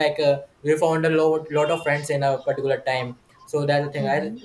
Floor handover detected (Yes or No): No